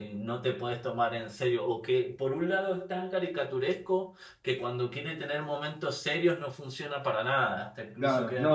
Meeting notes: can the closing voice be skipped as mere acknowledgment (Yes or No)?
No